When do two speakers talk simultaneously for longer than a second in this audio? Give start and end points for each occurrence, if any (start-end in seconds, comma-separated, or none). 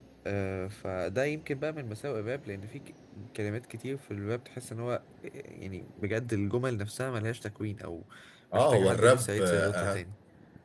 8.6-10.0